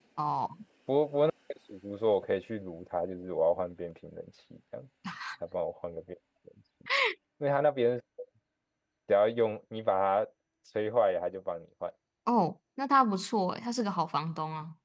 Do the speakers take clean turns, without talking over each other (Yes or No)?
Yes